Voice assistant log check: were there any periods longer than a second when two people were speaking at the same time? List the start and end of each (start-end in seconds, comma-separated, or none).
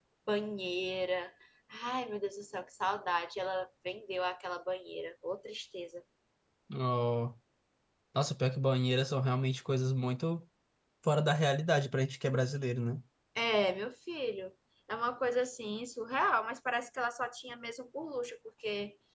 none